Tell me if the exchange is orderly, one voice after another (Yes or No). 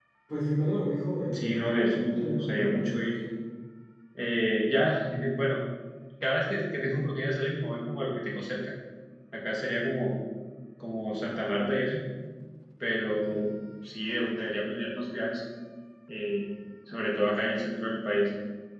No